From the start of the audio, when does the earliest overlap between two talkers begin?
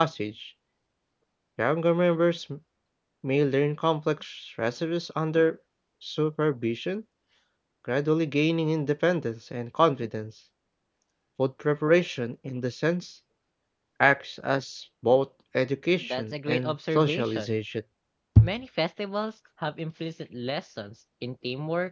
16.0 s

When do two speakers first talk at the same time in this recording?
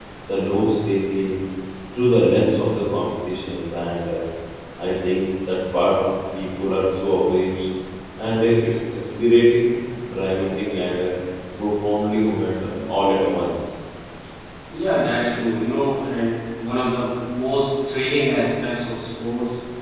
none

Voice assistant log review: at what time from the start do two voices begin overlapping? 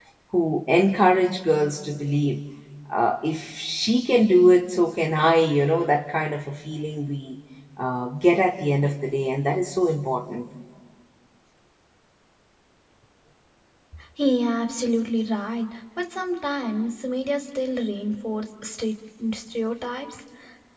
none

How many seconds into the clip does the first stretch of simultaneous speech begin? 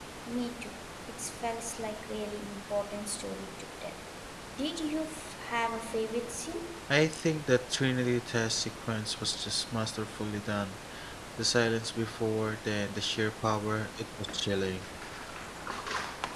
none

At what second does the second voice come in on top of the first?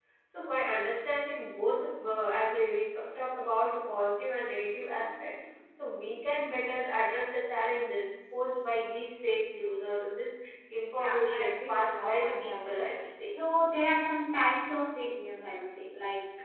10.9 s

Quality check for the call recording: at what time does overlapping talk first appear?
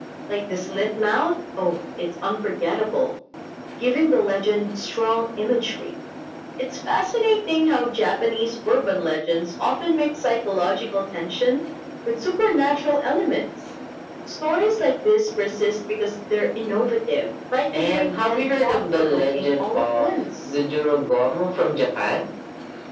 17.7 s

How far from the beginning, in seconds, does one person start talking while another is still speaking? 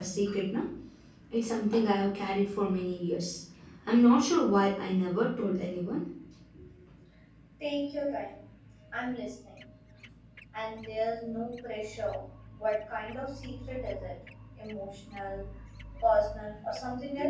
none

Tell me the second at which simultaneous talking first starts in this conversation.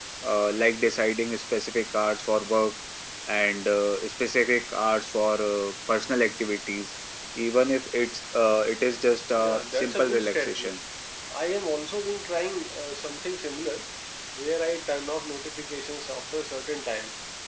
9.4 s

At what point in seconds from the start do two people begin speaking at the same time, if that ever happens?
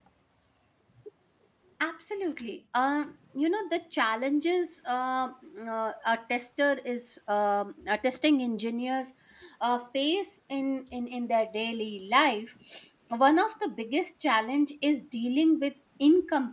none

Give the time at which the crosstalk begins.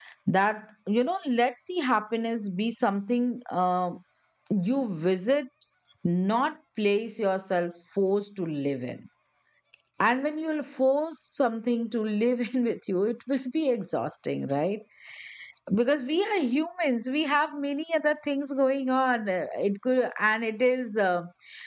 none

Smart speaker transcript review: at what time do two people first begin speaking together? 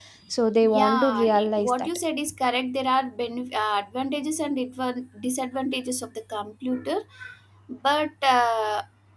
0.6 s

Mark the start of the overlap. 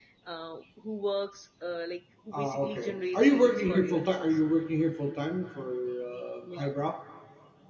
2.3 s

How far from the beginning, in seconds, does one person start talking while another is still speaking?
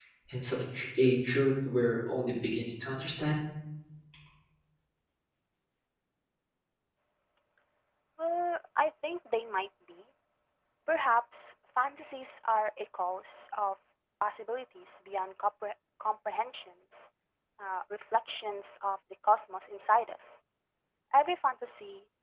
none

